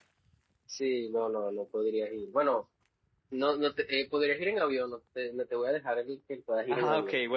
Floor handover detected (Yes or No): Yes